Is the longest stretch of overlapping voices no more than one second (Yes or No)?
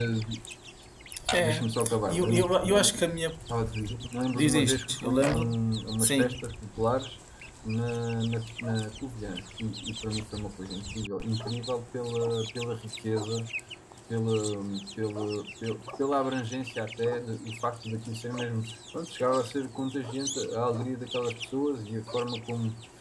No